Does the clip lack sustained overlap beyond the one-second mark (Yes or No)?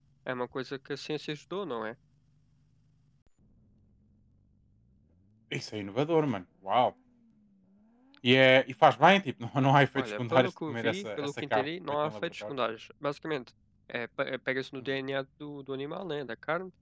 No